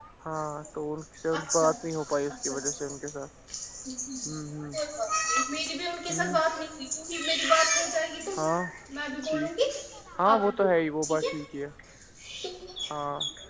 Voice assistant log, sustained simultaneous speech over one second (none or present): present